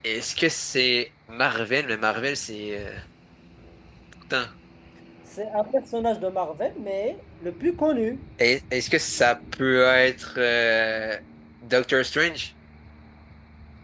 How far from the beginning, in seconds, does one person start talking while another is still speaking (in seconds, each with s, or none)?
none